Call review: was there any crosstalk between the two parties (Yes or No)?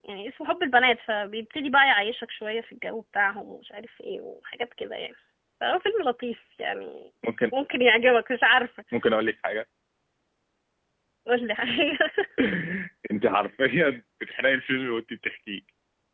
No